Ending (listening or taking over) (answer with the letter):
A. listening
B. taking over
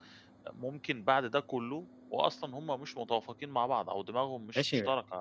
B